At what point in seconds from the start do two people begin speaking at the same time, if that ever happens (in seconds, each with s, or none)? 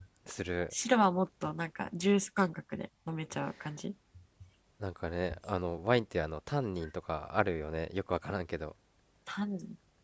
none